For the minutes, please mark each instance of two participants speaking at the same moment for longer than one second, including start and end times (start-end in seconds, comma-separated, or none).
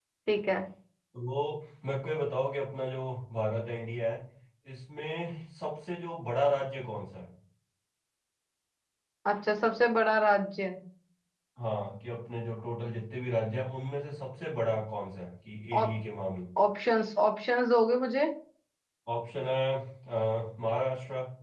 none